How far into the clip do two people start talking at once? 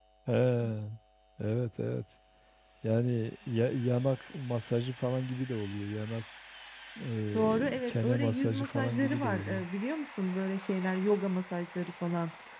7 s

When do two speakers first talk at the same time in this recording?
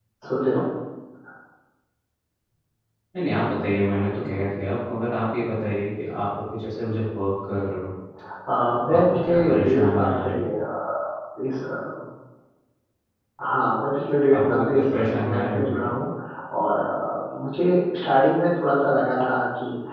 9 s

